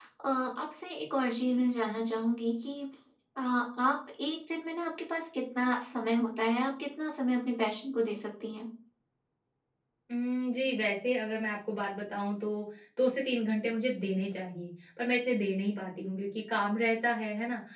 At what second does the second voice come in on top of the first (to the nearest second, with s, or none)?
none